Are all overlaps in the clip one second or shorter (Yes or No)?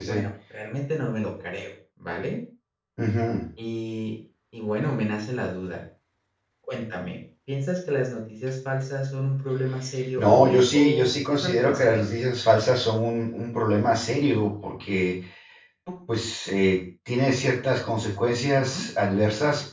No